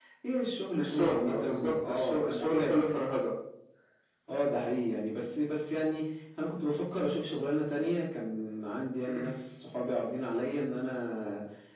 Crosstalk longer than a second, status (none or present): present